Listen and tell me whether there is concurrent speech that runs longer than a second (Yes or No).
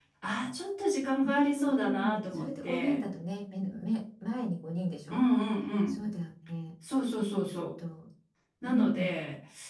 Yes